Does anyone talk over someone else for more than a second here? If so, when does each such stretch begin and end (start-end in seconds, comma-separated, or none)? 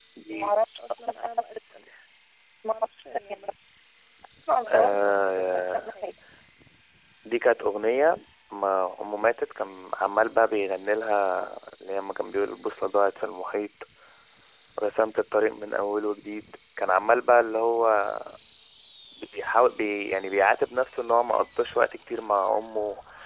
4.7-5.9